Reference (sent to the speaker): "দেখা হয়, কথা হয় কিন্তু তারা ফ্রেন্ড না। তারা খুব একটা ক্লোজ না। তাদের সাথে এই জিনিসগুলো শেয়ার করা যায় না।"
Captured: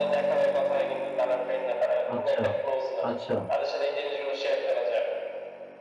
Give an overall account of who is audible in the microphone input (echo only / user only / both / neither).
both